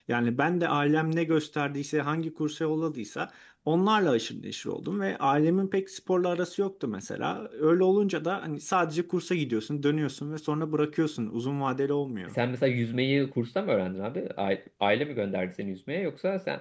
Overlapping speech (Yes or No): No